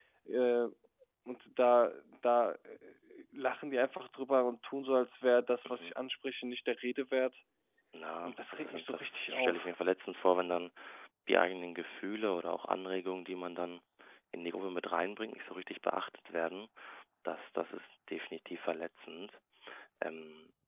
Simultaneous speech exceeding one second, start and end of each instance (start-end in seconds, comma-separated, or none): 8.2-9.7